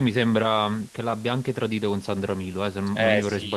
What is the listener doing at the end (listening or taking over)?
taking over